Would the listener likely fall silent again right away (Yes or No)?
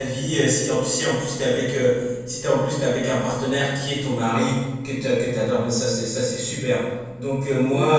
Yes